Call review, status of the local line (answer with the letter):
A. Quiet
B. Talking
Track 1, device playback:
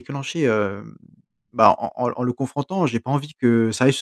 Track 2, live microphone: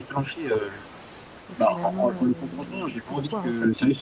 B